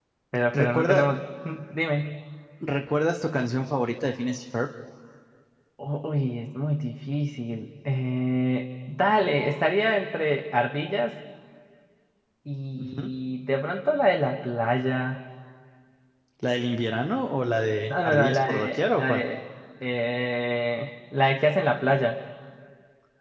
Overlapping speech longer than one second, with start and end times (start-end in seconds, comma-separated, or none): 17.9-19.2